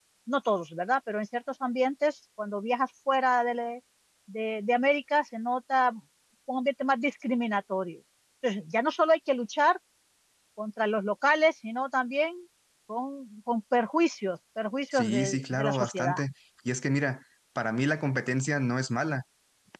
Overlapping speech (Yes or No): Yes